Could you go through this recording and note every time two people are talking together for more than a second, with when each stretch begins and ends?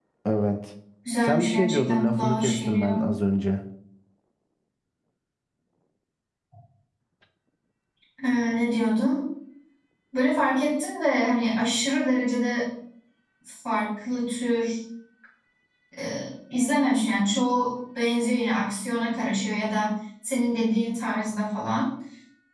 1.2-2.9

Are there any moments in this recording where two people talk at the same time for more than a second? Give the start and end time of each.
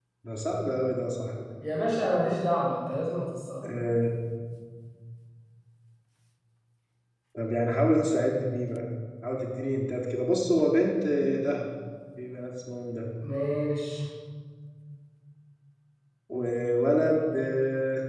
none

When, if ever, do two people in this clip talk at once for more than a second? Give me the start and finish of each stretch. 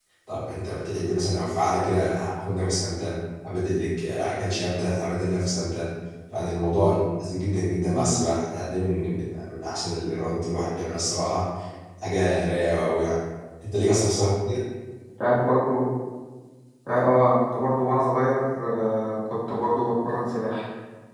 none

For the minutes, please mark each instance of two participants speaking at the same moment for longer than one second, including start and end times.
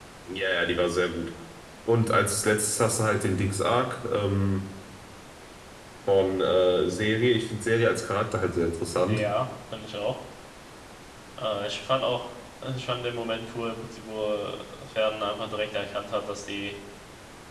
none

